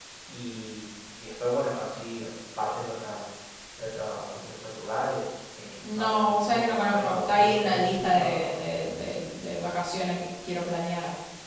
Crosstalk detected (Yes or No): Yes